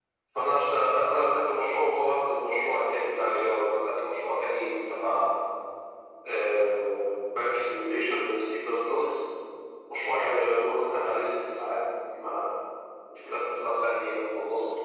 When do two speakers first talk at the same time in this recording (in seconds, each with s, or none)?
none